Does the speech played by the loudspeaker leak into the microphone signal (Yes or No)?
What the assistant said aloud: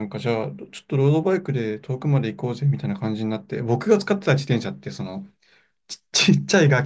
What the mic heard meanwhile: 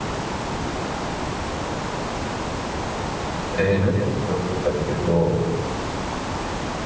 No